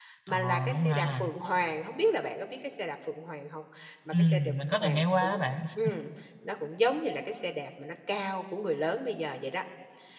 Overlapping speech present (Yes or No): Yes